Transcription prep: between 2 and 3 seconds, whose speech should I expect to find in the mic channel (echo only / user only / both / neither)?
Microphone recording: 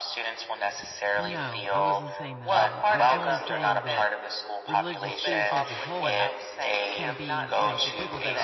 both